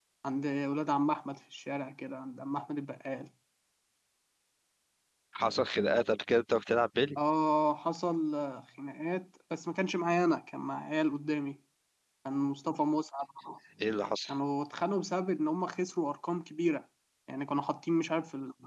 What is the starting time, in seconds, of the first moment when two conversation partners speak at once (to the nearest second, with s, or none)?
none